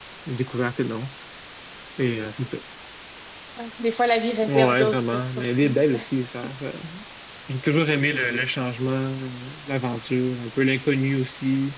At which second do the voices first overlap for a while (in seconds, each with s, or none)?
4.5 s